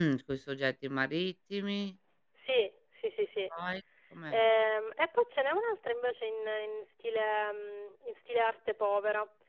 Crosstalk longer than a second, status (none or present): none